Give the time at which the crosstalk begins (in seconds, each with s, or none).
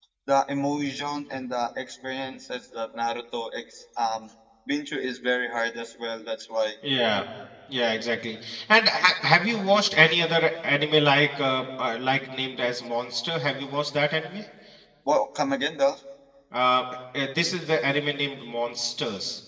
none